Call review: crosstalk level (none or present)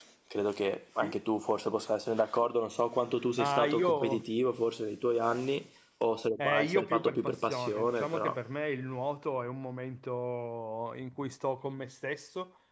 present